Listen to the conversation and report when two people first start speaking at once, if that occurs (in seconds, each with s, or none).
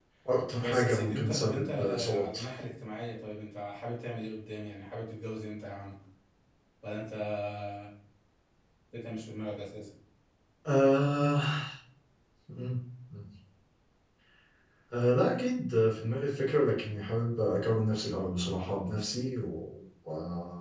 0.6 s